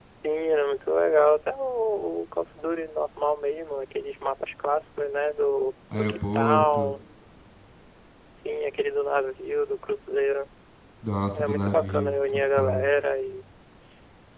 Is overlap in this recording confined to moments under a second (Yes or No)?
No